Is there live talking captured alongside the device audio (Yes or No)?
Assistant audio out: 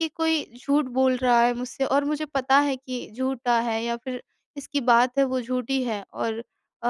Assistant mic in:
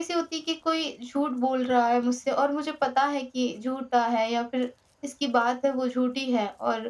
No